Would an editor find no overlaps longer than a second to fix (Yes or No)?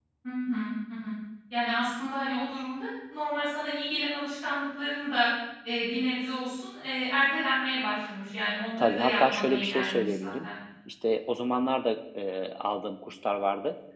No